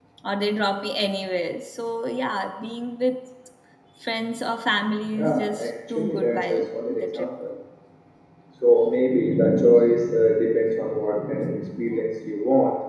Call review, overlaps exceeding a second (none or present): present